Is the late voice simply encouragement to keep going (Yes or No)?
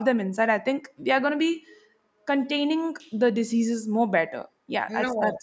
No